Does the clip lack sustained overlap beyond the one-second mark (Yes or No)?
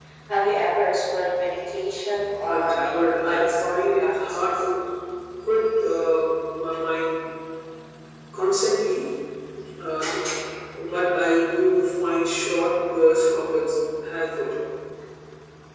No